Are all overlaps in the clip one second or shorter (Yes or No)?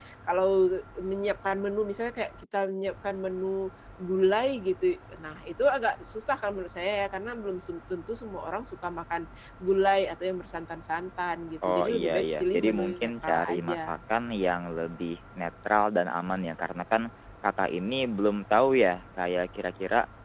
No